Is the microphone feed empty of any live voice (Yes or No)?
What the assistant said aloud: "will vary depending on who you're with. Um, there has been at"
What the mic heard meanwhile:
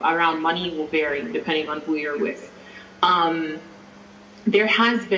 Yes